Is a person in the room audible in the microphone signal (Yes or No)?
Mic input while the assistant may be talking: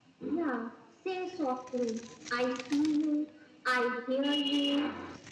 No